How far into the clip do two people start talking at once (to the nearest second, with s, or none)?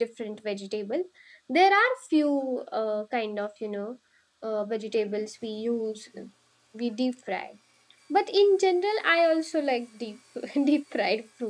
none